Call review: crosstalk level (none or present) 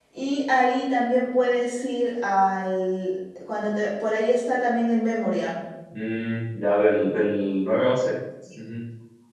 none